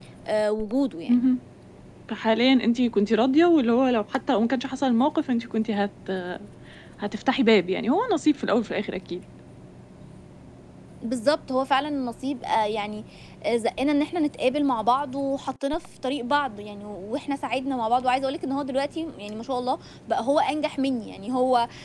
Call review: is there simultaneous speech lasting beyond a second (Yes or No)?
No